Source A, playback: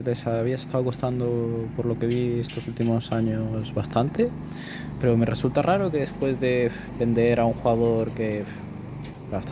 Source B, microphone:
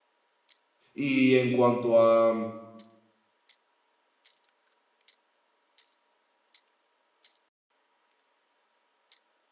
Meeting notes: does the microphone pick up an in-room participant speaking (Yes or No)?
Yes